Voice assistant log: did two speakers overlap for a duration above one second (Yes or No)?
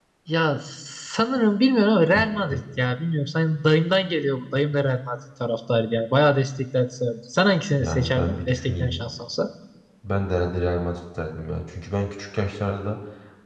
Yes